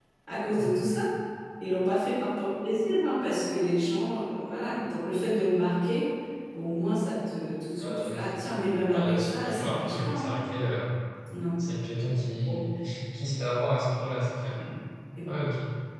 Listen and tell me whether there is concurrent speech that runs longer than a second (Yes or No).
Yes